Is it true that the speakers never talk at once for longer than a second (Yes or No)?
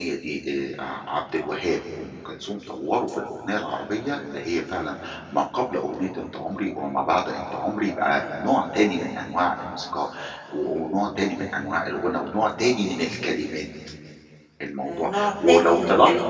No